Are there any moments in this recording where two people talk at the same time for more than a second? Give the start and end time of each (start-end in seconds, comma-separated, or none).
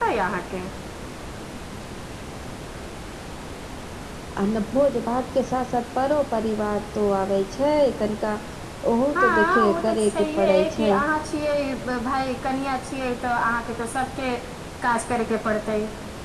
9.2-10.9